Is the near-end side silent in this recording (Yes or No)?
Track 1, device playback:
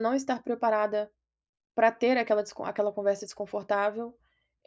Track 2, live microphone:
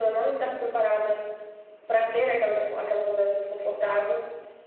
No